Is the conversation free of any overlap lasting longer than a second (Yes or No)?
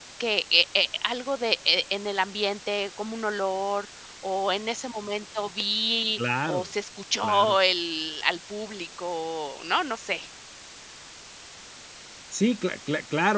Yes